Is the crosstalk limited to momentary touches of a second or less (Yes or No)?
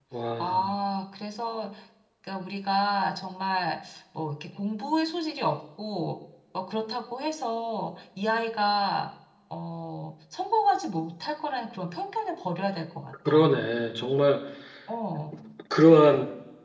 Yes